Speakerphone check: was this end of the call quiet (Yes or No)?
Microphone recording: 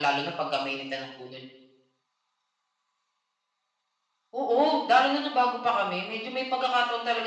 Yes